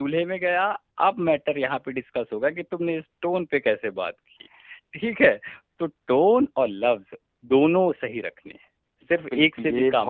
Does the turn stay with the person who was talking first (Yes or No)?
No